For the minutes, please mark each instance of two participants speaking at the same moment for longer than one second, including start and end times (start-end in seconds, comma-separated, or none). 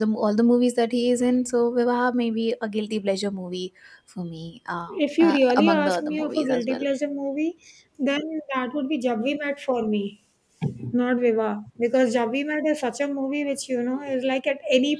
4.9-6.8